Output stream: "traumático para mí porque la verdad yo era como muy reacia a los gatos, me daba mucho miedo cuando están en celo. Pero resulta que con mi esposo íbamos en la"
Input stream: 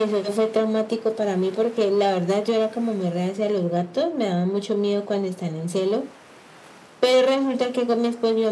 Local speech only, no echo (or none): none